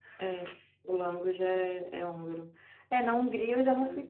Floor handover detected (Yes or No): No